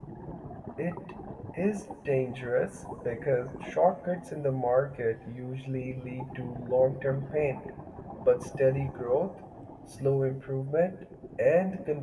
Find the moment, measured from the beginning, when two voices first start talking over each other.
none

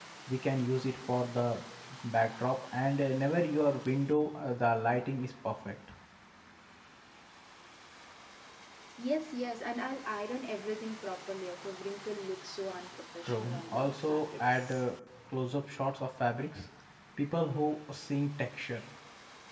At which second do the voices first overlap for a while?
13.3 s

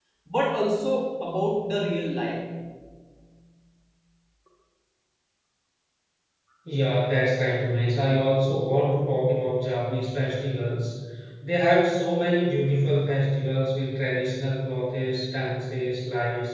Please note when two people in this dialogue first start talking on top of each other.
none

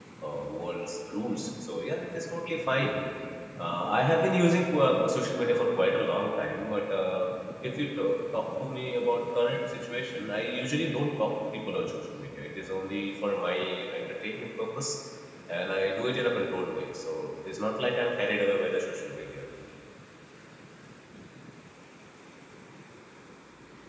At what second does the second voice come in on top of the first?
none

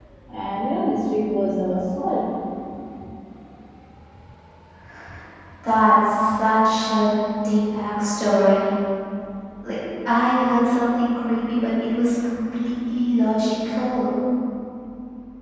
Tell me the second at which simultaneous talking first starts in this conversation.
none

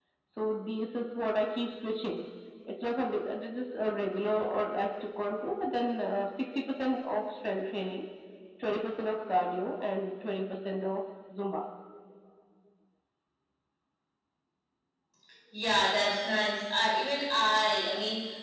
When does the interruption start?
none

